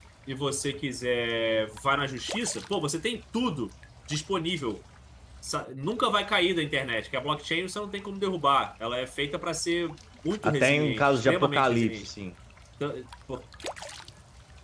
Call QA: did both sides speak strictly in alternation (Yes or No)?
No